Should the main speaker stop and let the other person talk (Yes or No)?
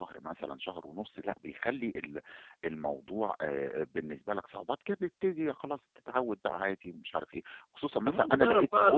Yes